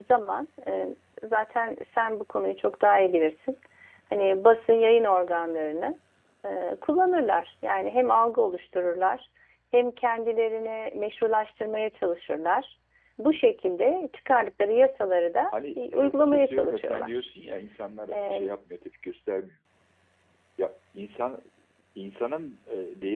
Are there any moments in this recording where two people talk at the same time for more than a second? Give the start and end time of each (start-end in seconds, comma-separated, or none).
15.8-17.2